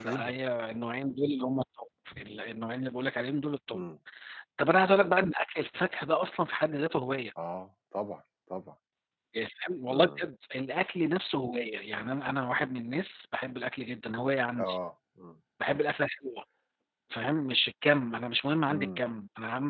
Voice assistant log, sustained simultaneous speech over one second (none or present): none